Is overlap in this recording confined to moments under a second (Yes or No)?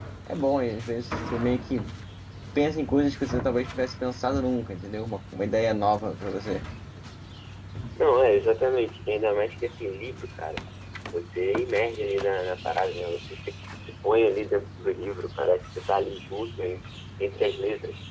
Yes